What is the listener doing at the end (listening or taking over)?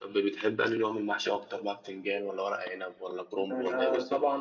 taking over